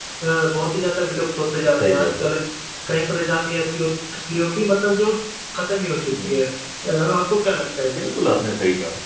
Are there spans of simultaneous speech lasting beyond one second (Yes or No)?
No